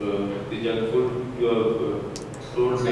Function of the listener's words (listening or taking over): listening